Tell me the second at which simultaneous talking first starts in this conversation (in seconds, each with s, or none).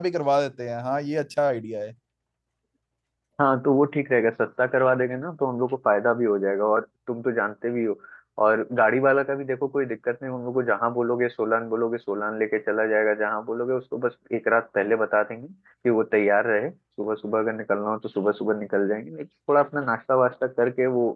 none